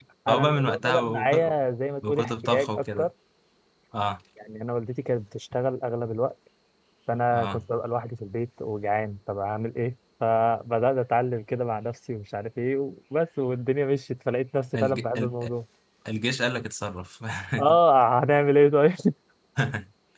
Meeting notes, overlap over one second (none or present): present